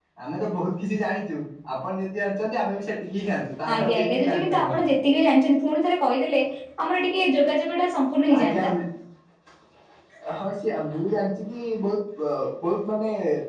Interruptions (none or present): present